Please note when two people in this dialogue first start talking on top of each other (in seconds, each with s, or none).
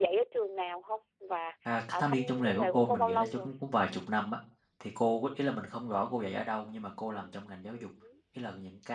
1.6 s